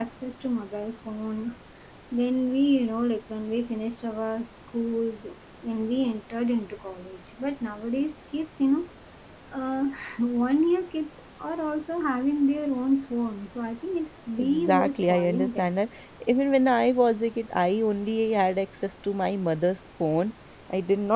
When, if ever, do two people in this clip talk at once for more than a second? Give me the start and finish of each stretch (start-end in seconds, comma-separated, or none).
14.4-15.7